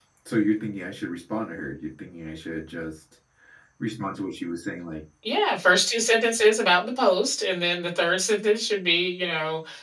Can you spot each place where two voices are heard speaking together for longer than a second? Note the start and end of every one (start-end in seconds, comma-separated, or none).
none